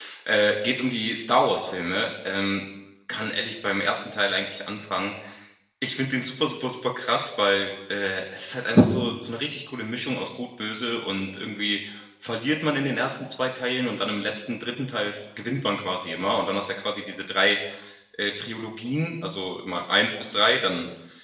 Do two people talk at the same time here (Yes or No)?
No